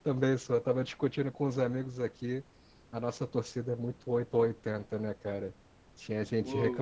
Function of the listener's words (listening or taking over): listening